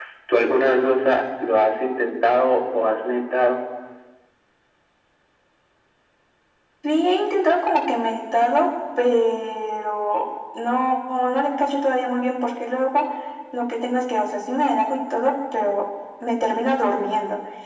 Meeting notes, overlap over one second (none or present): none